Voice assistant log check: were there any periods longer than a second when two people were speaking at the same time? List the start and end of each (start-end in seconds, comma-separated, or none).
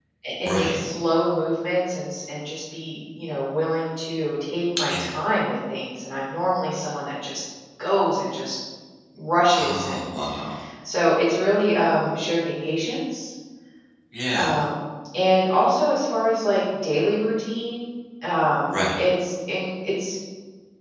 none